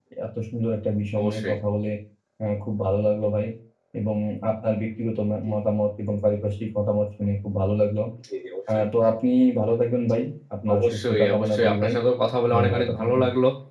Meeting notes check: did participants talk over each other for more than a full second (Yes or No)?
Yes